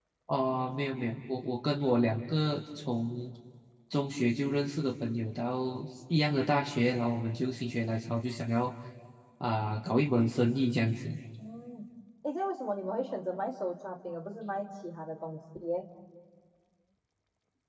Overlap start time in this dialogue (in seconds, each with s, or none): none